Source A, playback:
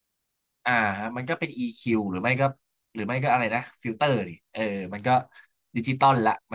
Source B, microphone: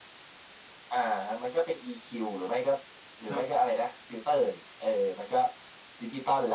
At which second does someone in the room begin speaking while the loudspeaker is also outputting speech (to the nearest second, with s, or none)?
3 s